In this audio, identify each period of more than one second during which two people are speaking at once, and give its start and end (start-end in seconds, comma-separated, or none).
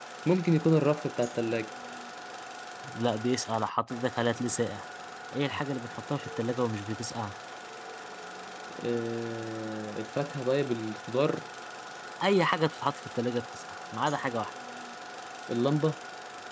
none